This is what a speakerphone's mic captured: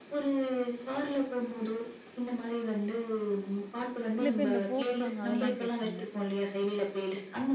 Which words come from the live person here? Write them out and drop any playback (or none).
சில பேர் இந்த ஃபோக் சாங் அதெல்லாம் கேட்பாங்க.